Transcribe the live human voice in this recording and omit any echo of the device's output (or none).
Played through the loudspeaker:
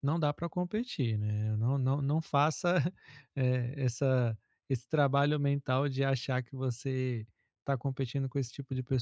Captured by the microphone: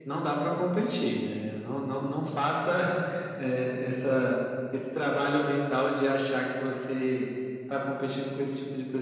none